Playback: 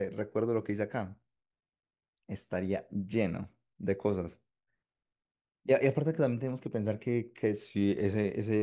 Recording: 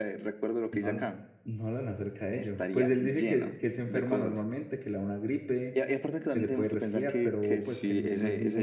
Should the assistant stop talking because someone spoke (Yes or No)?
Yes